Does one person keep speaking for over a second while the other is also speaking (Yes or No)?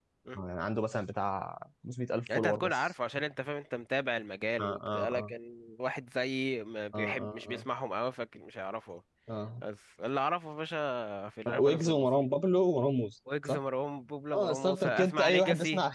Yes